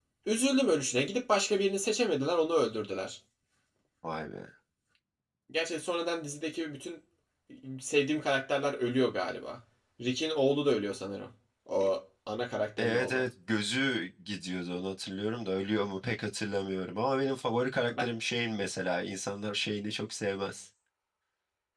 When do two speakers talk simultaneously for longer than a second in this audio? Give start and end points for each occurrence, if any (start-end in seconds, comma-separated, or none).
none